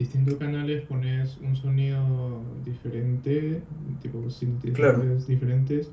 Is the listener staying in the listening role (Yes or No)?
Yes